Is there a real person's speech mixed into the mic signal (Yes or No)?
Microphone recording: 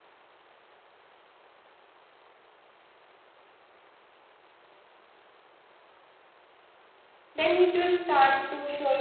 Yes